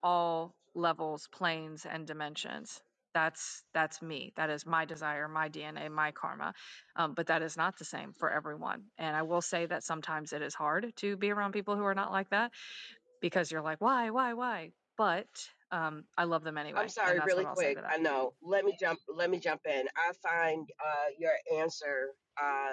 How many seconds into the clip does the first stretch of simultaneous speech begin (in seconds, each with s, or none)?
16.7 s